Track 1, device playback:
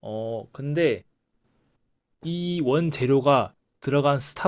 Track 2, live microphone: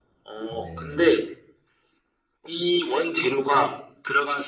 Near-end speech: present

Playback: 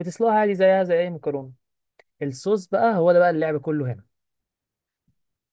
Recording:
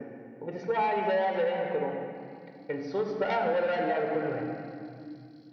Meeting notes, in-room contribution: none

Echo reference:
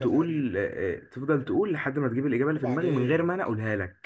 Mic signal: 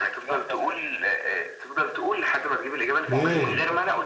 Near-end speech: present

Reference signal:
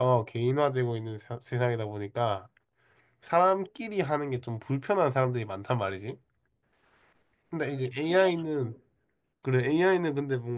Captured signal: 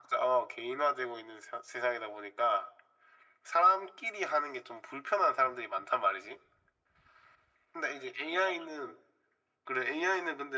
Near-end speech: none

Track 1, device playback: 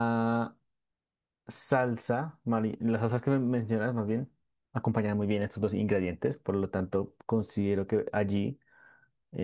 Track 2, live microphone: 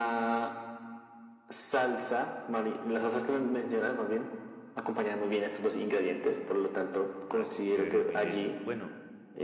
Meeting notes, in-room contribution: present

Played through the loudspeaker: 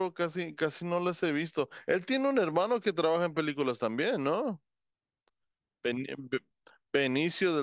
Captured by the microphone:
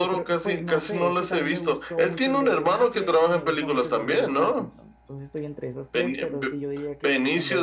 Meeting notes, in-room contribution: present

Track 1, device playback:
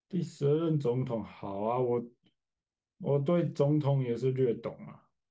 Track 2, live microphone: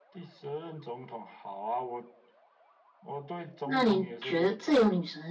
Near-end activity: present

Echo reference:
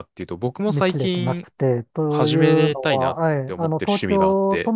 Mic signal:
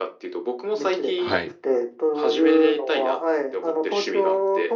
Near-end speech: present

